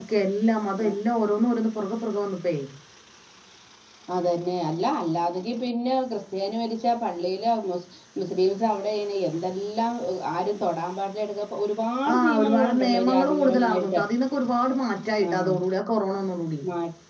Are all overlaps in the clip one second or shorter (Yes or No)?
No